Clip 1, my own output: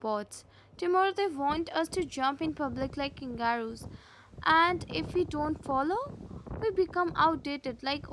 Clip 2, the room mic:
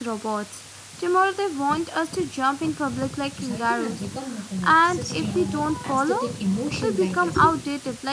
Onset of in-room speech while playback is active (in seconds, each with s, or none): 3.3 s